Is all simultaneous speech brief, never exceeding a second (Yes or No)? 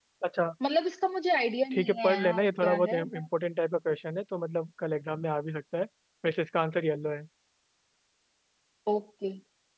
No